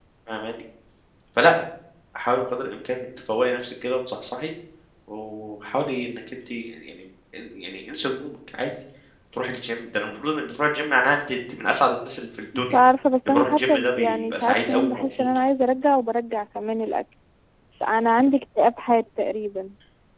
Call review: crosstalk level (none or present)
present